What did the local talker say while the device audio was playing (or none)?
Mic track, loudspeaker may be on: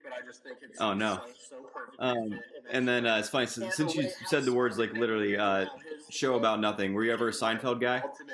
Oh no. Um, and then uh, it's funny since since you said the words like literally uh, show about nothing. Were you ever a Seinfeld guy?